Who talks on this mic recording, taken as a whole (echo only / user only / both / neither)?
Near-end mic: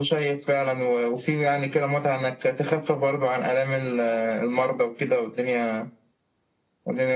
echo only